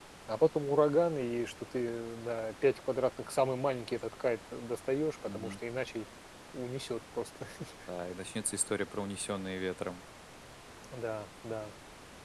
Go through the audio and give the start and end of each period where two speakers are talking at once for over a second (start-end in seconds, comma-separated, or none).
none